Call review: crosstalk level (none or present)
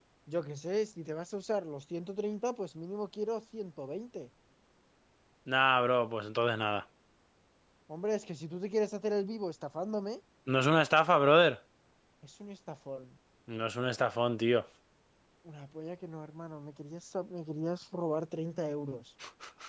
none